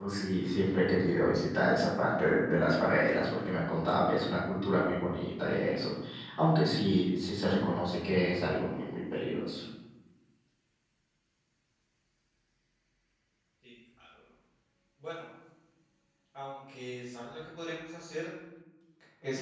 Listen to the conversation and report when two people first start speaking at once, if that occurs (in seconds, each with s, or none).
none